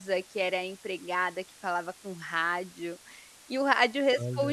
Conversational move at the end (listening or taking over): listening